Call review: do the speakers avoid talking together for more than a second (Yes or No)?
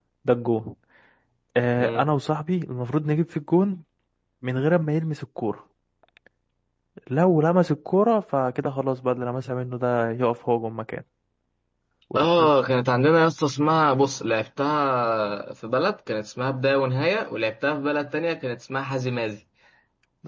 Yes